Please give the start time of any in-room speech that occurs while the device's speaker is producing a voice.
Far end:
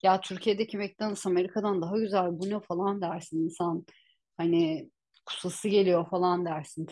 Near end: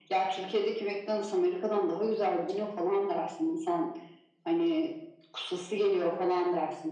none

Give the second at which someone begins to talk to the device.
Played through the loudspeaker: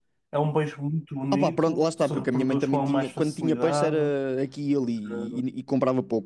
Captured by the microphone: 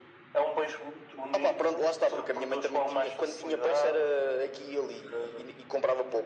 none

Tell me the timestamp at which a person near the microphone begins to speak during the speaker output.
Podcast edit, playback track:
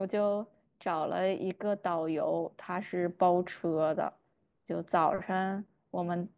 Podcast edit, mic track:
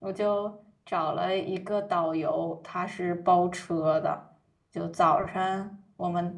none

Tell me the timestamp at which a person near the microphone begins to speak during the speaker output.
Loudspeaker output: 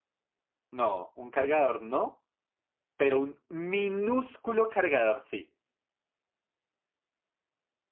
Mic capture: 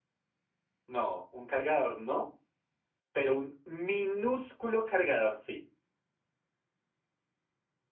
none

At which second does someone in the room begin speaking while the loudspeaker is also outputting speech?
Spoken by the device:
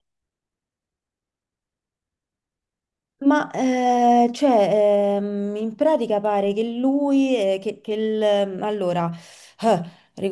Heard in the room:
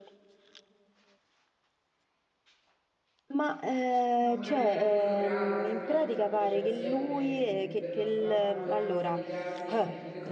4 s

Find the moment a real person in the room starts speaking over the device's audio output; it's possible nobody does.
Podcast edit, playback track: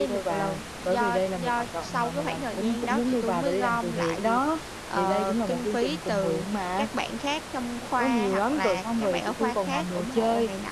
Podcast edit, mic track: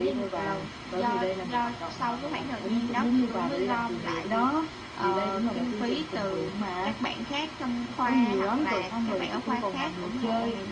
none

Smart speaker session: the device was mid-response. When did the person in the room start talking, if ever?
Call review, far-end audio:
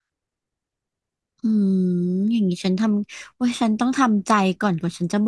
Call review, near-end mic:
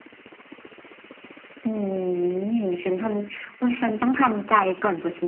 none

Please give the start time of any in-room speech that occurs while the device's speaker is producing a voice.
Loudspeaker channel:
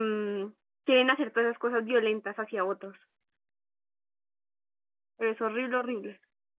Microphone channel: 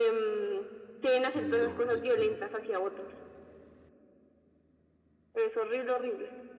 1 s

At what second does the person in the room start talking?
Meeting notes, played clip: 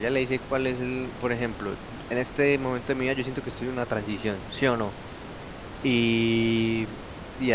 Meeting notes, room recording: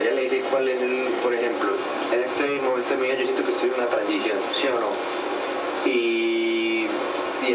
none

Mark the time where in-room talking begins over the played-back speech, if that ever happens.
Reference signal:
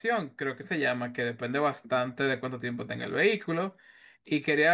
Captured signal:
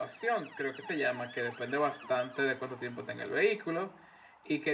none

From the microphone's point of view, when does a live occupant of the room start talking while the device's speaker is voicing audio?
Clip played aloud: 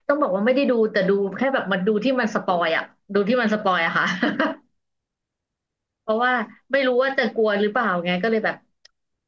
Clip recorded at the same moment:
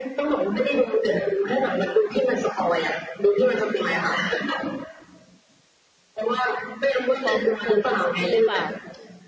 7 s

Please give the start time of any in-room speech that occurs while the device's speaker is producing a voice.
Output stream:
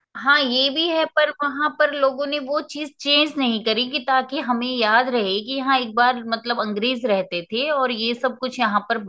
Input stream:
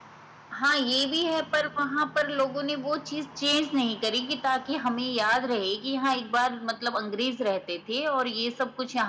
none

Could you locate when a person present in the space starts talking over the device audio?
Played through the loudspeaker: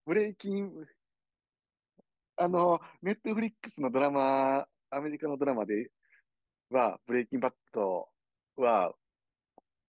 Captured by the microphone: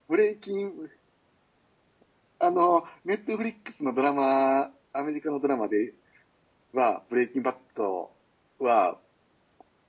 none

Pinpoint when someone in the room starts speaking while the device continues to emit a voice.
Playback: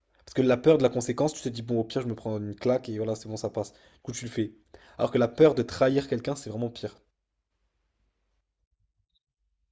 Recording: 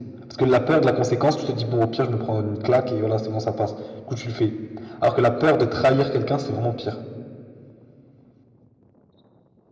none

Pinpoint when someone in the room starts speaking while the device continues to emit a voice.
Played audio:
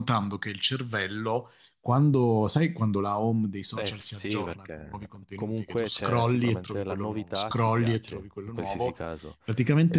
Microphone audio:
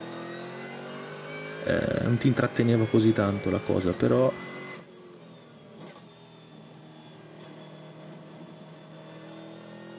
2 s

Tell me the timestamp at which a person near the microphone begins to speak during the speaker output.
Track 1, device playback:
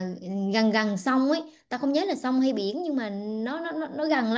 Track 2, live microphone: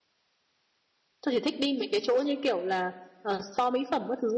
1 s

